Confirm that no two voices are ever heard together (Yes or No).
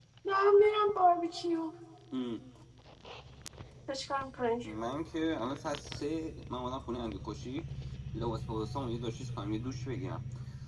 Yes